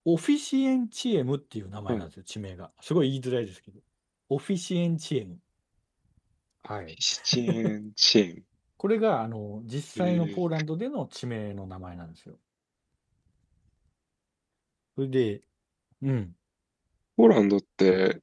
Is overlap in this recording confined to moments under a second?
Yes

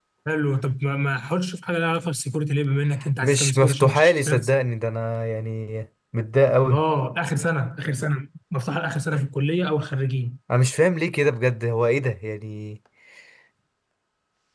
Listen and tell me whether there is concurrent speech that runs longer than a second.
Yes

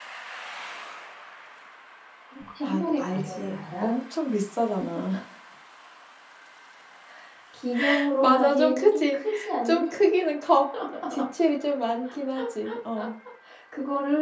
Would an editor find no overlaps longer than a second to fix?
No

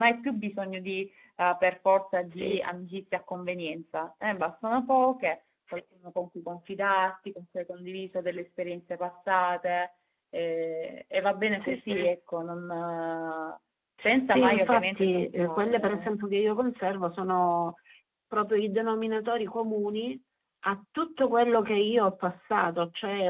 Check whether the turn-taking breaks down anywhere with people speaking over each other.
Yes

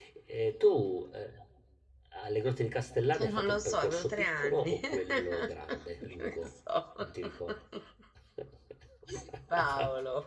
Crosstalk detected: Yes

